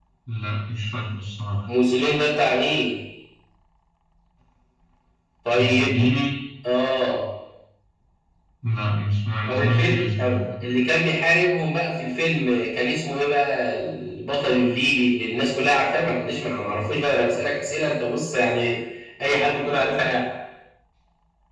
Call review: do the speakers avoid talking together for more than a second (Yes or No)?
No